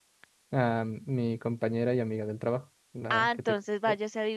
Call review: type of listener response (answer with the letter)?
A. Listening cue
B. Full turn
B